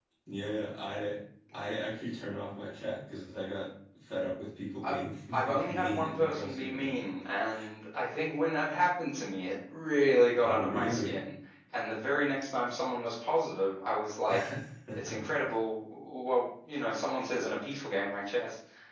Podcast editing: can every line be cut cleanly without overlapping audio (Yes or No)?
No